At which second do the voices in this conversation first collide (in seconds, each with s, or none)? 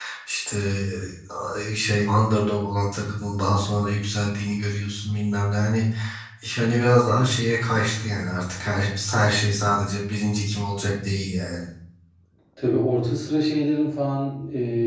none